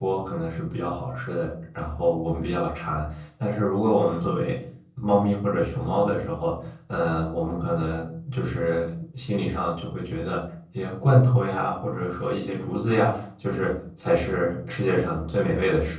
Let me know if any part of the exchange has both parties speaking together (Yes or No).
No